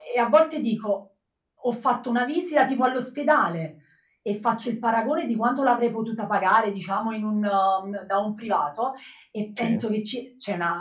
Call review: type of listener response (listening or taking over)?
listening